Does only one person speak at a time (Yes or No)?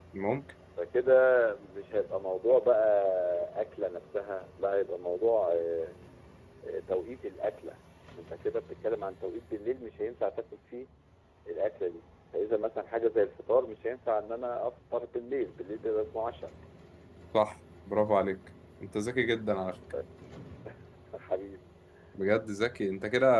Yes